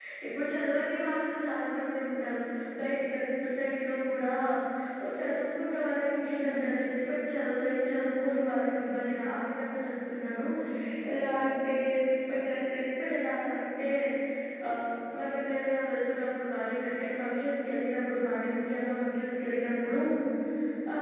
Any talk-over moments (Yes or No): No